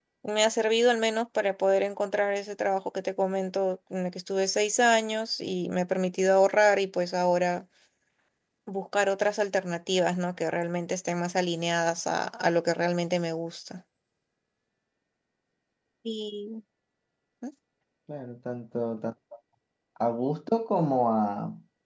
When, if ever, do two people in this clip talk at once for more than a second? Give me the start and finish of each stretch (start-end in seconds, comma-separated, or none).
none